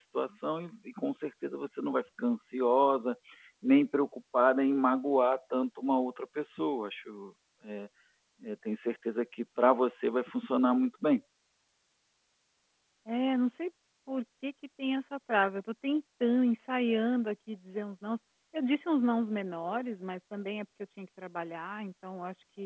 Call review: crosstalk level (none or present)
none